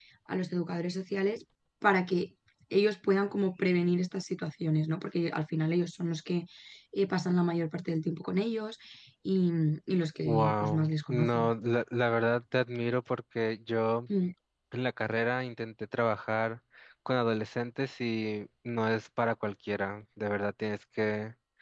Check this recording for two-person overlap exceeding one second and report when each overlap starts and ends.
10.2-11.5

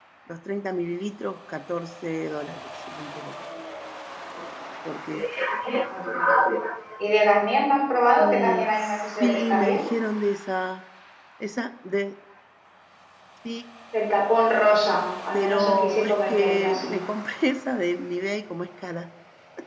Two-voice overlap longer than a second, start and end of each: 8.2-9.8, 15.3-16.9

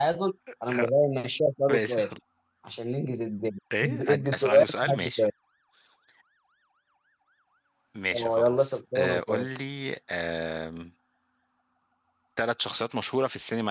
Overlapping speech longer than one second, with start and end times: 3.8-5.2, 8.1-9.5

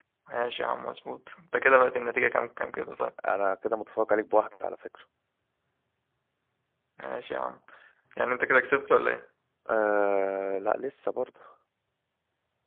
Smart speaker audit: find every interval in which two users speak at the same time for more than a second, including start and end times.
none

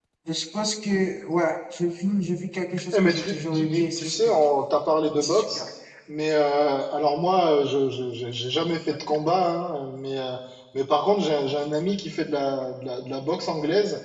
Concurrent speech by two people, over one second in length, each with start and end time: 2.9-4.4

